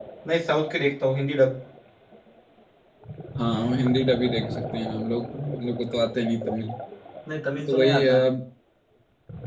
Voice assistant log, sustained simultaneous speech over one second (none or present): none